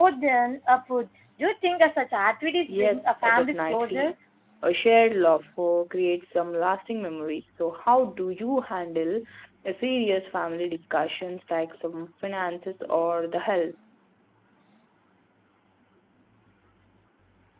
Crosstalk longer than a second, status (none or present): present